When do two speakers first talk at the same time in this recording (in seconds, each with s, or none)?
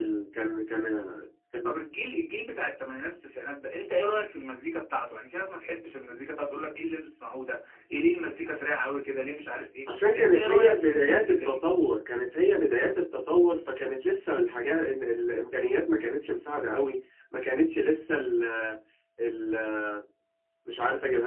9.9 s